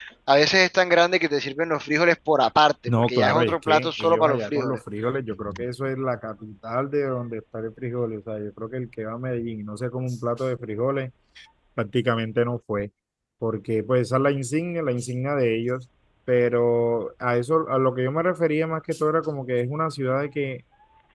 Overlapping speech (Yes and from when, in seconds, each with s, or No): Yes, from 2.9 s